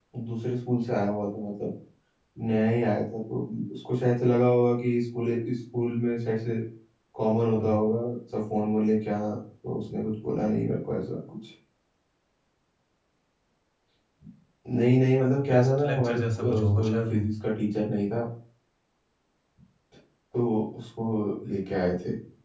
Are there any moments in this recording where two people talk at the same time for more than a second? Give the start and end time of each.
15.4-17.2

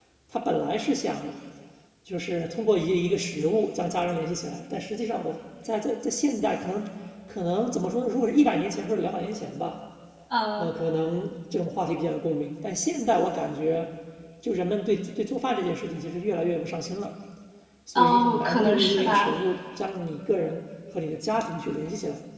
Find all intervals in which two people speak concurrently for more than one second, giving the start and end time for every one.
18.0-19.3

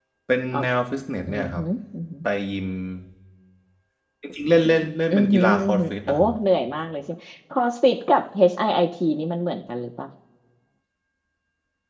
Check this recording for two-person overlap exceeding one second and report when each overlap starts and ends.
5.1-6.3

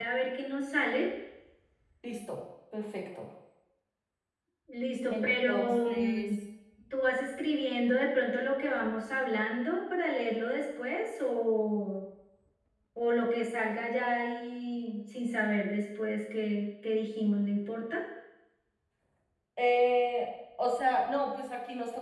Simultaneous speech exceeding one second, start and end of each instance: 5.1-6.4

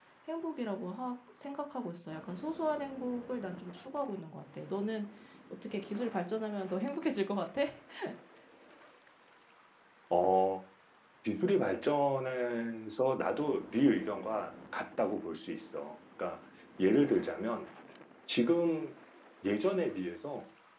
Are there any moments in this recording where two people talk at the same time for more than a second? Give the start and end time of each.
none

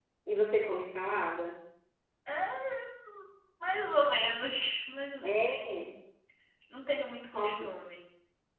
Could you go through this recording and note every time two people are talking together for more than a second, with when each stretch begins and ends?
none

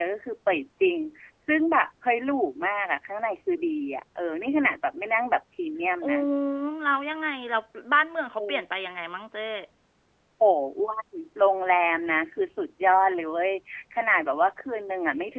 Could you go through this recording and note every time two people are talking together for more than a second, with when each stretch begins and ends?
none

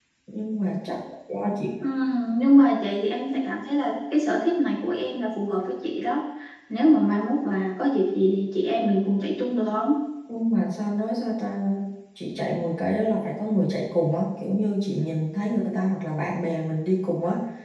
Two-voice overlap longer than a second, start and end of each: none

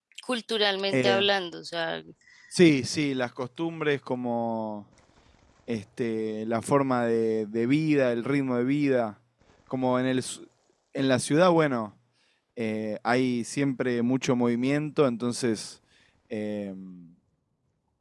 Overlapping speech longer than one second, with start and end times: none

